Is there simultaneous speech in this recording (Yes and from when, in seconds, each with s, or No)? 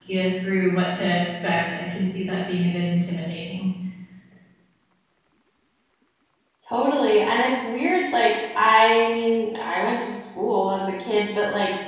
No